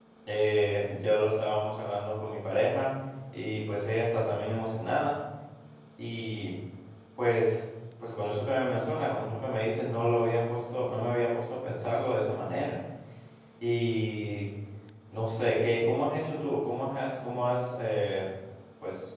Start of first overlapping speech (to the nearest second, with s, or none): none